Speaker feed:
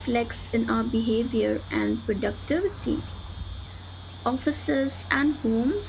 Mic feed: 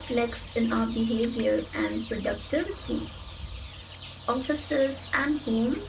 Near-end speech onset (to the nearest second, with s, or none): none